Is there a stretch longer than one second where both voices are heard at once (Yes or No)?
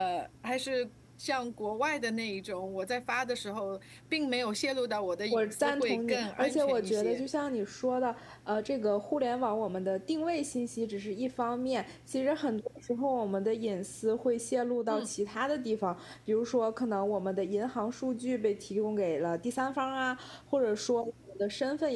Yes